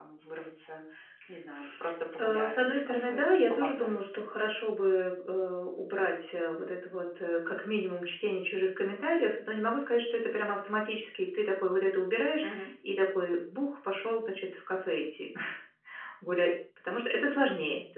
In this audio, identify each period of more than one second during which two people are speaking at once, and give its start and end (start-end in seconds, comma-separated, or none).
2.2-4.0